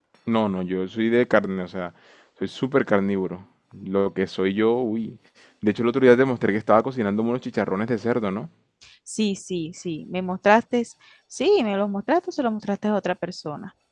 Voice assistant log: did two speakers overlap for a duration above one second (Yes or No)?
No